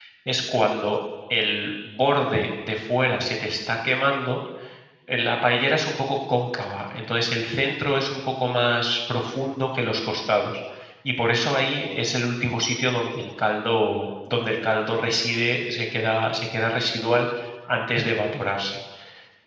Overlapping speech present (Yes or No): No